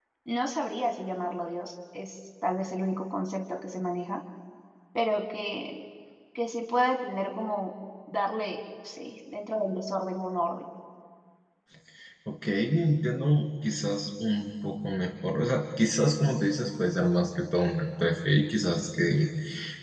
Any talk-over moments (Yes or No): No